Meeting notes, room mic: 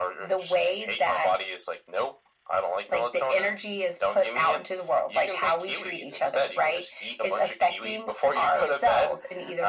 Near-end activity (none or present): none